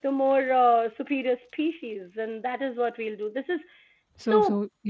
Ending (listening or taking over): taking over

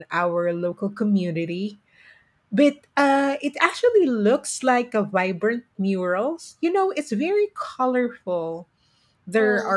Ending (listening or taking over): listening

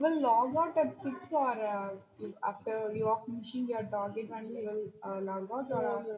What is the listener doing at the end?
taking over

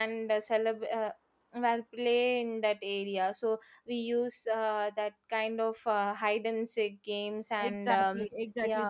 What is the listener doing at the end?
taking over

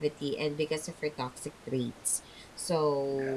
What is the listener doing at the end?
listening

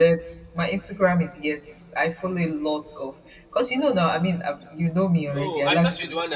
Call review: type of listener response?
taking over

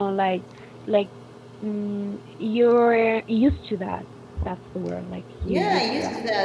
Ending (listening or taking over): taking over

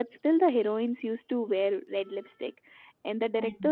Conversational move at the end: listening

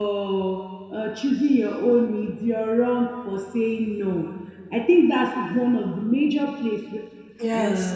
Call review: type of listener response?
listening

